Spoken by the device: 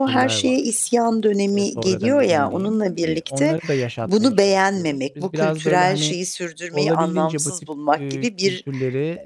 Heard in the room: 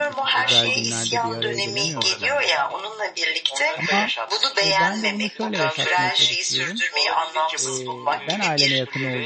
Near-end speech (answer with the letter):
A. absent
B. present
B